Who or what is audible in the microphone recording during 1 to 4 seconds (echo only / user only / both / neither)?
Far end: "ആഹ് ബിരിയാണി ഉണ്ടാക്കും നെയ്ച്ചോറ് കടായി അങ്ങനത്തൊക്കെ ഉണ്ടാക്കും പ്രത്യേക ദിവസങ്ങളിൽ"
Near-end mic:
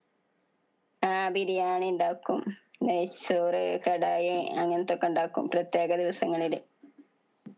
echo only